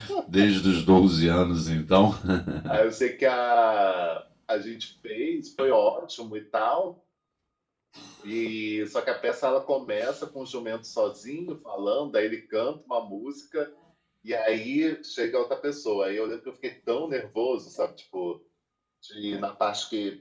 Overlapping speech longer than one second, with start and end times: none

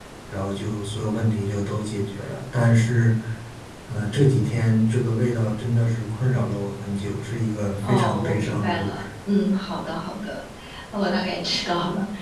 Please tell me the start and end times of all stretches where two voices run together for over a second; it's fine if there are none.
7.8-9.0

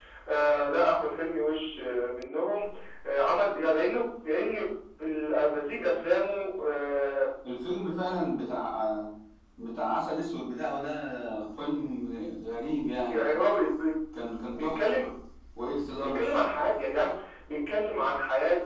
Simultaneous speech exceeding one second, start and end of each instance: none

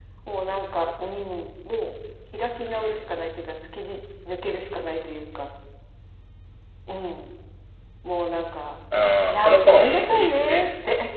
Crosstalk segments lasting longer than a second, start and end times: 9.3-10.7

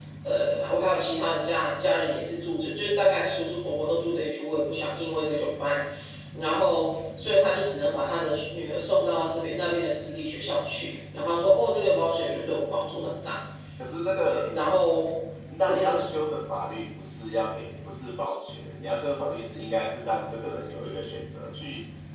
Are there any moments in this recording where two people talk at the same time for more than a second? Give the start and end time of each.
none

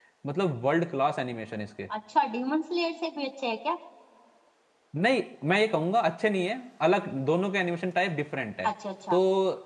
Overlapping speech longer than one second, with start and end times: none

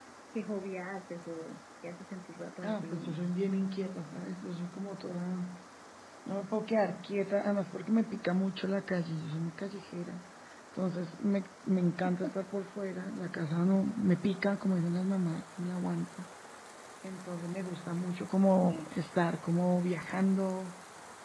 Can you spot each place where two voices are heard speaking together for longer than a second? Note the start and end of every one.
none

